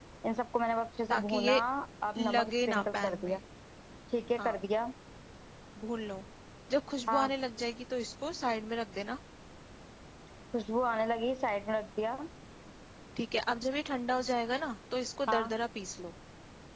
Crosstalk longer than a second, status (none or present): present